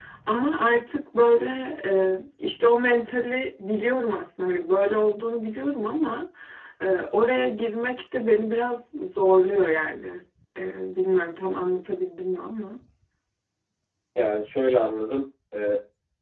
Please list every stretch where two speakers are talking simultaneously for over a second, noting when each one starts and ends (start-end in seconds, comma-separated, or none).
none